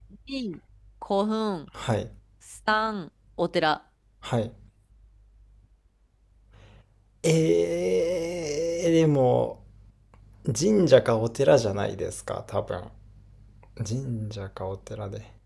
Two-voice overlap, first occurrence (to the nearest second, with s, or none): none